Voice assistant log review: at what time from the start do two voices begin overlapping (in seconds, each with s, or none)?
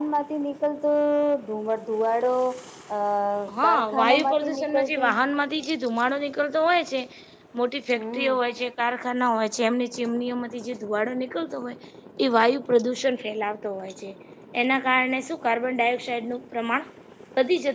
3.7 s